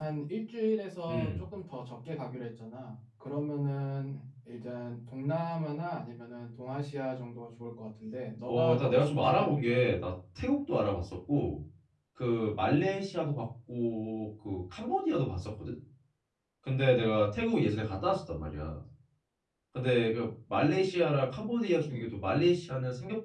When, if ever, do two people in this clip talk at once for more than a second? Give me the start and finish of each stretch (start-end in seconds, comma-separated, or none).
8.5-9.8